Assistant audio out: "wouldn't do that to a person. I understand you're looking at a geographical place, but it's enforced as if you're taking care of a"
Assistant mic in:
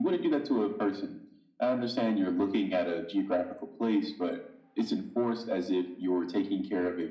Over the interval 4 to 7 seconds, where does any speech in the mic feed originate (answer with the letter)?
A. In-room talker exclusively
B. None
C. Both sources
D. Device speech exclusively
D